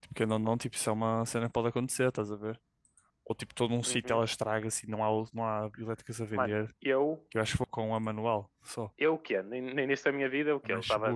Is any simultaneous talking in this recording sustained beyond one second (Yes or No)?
No